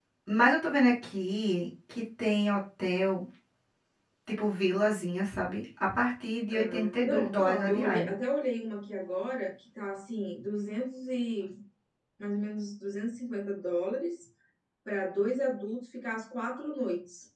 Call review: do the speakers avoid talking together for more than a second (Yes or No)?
No